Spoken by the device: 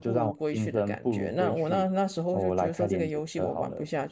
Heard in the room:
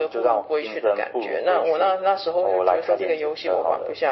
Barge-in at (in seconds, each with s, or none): none